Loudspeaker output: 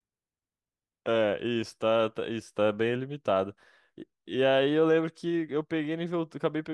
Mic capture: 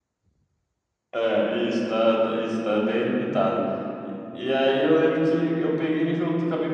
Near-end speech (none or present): none